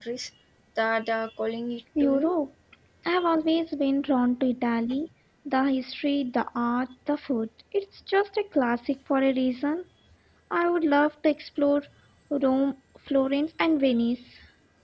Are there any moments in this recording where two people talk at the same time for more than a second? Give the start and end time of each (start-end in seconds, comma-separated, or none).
none